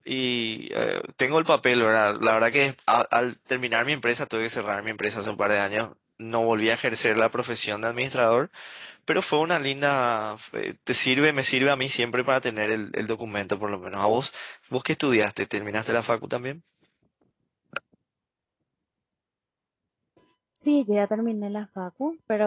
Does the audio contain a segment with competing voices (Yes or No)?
No